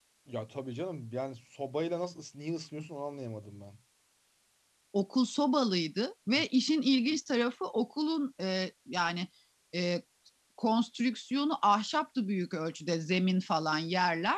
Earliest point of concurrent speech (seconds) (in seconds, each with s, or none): none